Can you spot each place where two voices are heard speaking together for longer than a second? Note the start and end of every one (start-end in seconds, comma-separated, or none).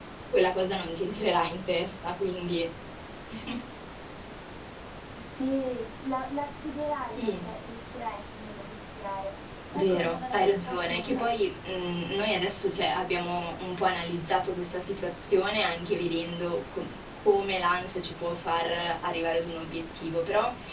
9.7-11.2